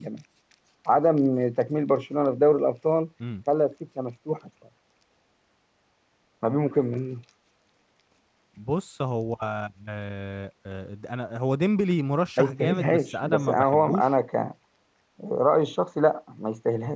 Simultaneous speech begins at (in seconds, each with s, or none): 12.4 s